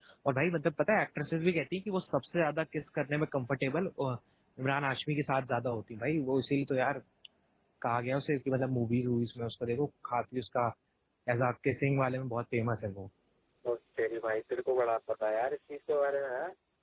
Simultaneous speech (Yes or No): No